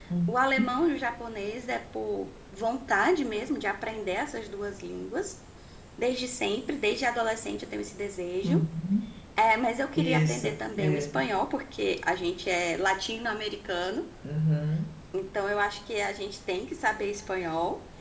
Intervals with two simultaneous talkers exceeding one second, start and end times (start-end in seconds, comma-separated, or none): 10.0-11.2